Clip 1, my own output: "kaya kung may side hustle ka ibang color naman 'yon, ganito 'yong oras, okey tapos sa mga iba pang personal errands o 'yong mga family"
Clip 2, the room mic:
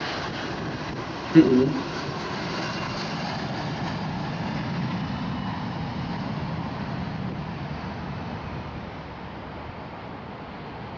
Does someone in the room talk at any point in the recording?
Yes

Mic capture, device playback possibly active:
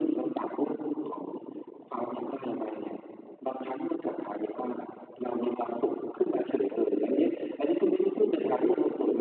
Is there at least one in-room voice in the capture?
No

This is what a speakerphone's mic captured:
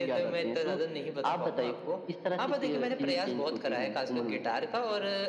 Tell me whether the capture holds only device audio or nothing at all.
Yes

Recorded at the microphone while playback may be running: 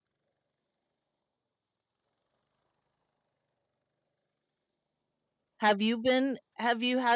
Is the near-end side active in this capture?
Yes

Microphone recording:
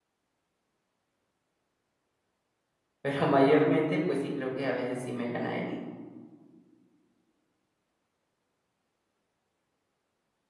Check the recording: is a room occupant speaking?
Yes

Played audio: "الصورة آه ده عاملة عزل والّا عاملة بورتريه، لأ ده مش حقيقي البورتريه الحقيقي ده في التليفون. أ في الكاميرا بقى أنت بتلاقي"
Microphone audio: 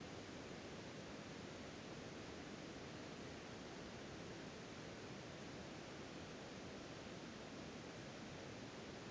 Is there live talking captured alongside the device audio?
No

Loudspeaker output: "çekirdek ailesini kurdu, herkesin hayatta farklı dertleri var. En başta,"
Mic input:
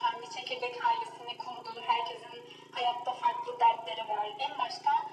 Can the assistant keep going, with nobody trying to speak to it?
Yes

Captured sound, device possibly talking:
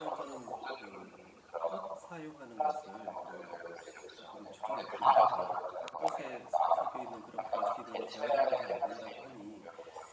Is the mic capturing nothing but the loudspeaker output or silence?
No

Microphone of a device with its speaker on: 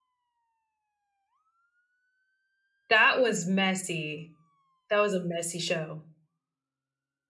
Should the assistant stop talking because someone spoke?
Yes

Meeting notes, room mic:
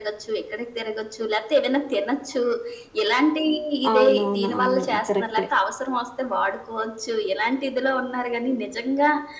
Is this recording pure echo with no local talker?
No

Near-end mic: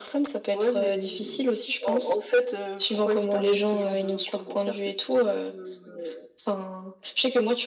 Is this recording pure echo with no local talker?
Yes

